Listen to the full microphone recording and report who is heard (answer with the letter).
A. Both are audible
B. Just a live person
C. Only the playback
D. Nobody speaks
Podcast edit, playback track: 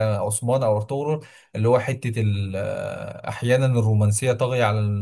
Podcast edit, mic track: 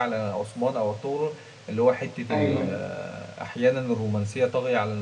A